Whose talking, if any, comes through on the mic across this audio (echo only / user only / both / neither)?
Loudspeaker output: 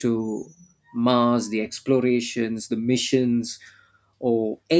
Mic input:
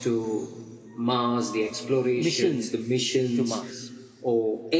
both